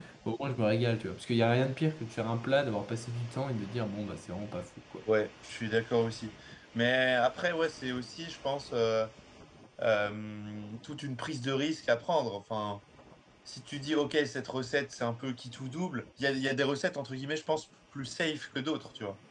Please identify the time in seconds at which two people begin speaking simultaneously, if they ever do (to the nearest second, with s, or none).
none